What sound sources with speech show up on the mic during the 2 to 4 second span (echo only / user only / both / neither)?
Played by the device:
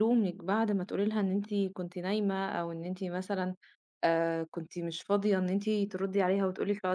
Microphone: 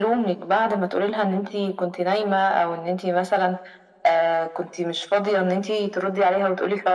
echo only